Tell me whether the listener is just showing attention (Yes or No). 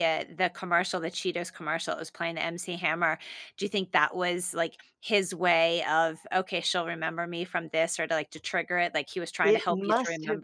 No